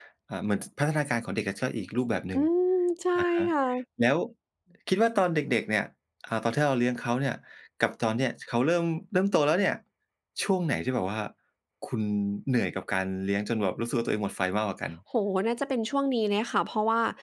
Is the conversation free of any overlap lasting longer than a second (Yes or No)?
Yes